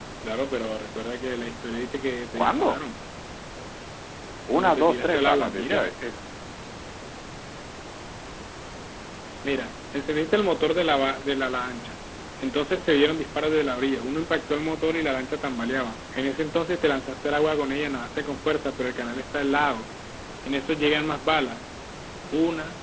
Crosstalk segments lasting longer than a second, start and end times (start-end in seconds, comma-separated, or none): 4.6-5.9